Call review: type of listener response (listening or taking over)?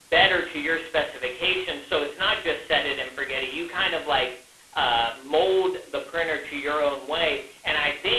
taking over